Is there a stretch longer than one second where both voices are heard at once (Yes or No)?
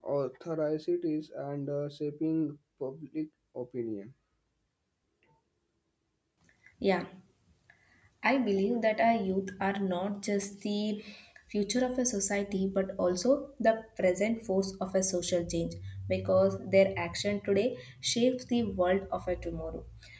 No